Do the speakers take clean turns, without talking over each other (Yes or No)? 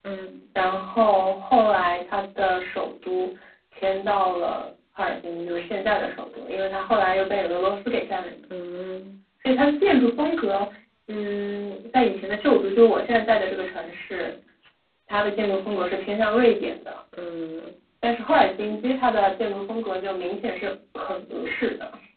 Yes